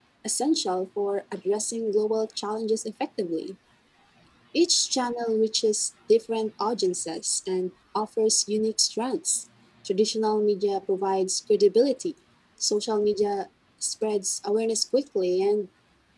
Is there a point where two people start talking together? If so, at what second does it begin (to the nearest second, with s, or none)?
none